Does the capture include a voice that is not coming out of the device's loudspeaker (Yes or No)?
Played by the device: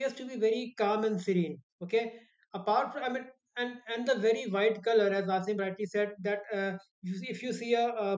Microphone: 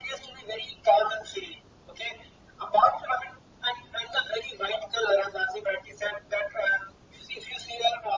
No